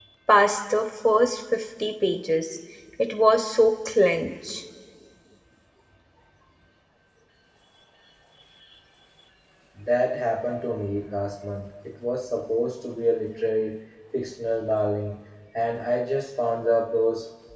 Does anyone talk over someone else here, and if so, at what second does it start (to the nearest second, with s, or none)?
none